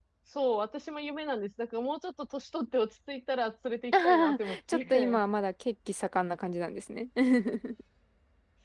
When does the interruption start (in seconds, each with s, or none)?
3.9 s